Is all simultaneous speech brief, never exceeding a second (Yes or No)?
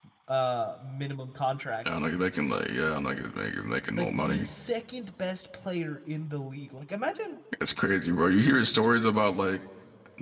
Yes